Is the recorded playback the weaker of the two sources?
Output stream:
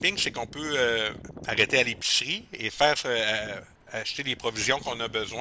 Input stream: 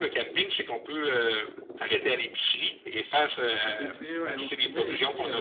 No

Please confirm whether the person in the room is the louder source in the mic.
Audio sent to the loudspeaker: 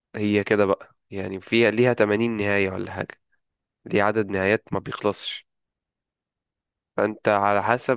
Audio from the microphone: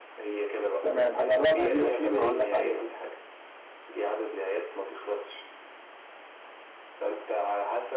Yes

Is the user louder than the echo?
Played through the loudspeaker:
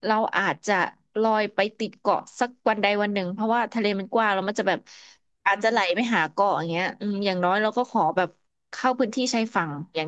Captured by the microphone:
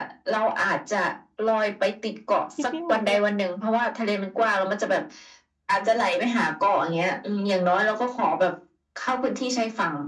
No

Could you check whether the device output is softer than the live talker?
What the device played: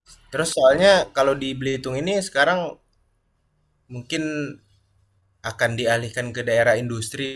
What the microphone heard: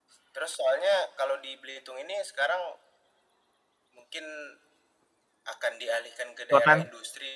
Yes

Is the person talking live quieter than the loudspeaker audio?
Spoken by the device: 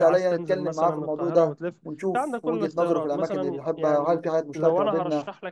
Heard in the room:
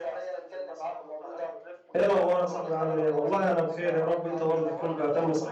No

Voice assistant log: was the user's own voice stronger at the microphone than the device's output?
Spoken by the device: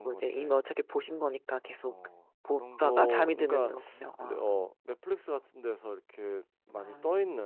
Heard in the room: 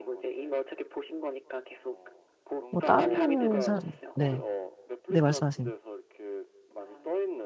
Yes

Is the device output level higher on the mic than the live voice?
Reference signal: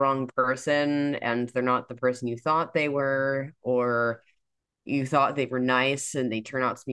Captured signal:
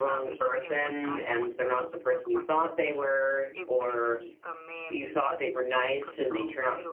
Yes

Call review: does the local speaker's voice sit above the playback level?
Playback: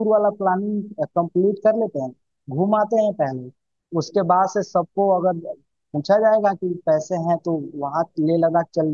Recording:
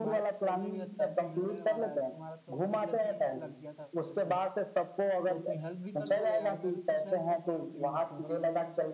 No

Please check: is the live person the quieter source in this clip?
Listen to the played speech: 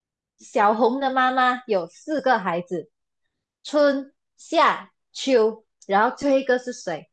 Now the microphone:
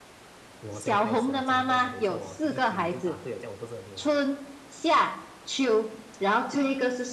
Yes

